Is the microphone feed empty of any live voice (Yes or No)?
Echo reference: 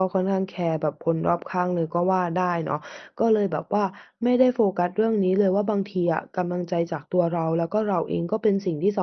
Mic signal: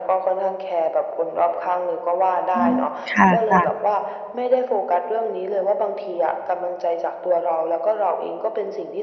No